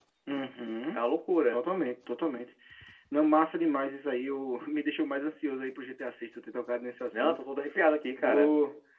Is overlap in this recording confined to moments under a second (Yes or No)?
Yes